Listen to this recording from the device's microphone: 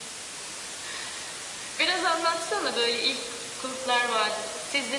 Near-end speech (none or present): none